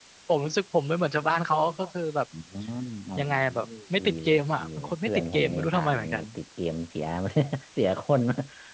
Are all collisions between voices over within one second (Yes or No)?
No